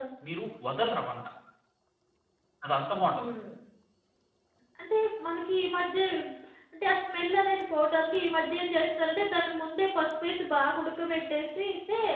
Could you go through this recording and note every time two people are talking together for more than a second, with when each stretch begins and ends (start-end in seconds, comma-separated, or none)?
none